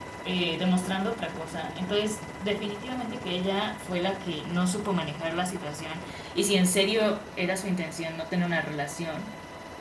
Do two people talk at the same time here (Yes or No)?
No